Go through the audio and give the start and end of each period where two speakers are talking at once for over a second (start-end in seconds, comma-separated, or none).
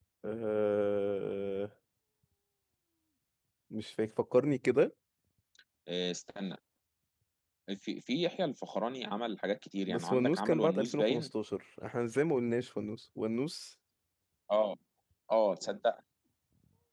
9.9-11.3